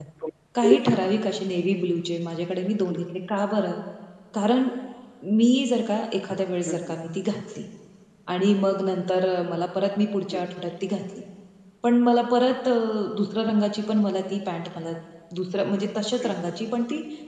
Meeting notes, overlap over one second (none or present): none